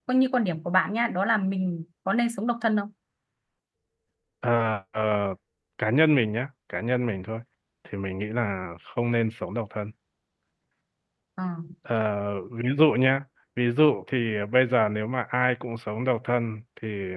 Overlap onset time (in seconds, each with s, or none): none